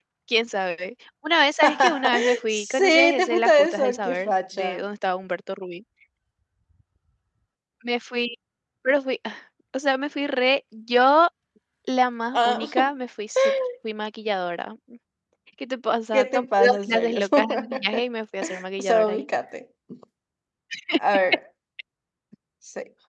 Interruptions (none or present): present